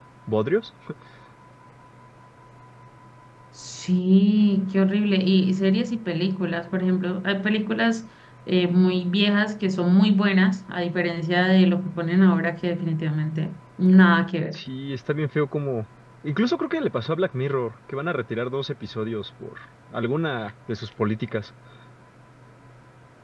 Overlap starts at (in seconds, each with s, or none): none